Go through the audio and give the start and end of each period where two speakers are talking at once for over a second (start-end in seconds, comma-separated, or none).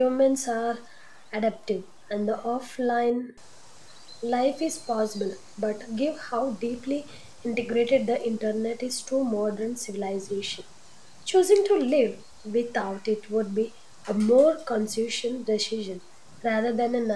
none